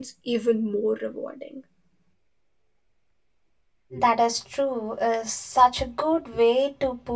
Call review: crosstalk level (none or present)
none